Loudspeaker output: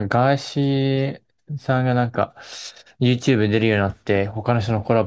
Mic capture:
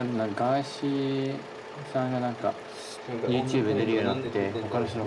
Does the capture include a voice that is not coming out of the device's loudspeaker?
Yes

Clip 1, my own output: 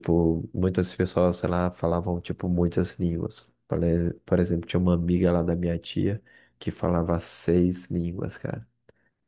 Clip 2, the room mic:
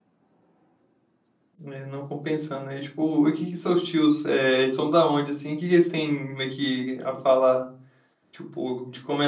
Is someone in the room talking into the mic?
Yes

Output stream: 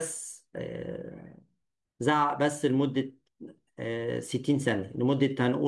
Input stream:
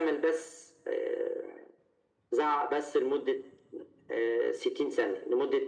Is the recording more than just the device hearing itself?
No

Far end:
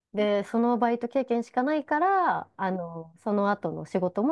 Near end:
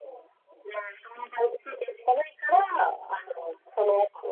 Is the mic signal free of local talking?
Yes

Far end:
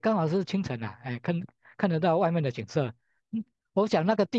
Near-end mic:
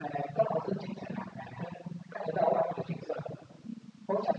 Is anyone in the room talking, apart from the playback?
No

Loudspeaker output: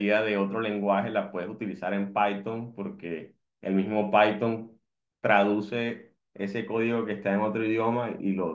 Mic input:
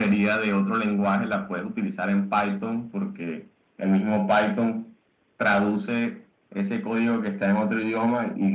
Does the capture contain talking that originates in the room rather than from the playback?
No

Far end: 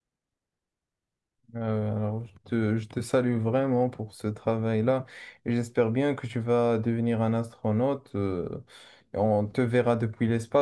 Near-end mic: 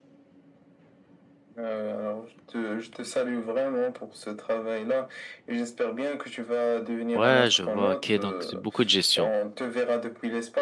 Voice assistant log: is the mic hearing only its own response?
No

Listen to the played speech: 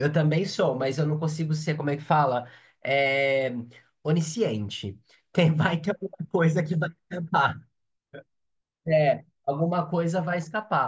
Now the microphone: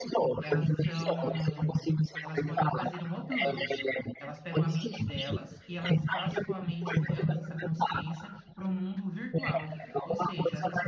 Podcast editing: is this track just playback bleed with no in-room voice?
No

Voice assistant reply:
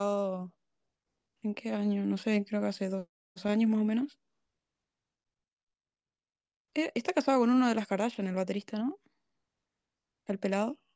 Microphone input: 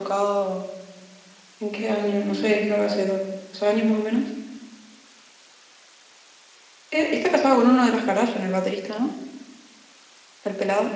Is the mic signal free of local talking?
Yes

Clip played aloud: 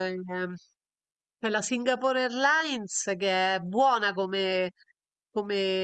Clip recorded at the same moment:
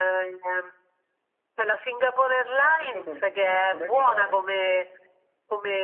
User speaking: Yes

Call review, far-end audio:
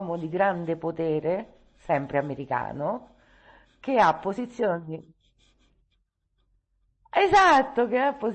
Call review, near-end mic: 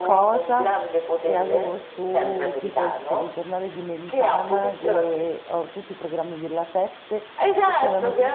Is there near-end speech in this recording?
Yes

